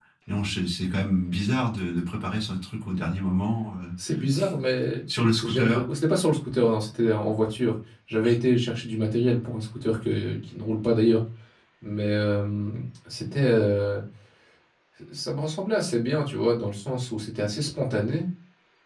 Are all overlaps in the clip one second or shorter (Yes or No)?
Yes